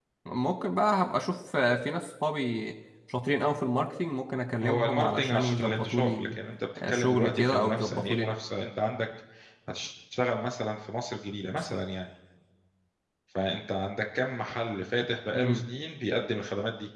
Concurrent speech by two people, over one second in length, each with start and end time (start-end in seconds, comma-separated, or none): 4.6-6.4, 6.9-8.4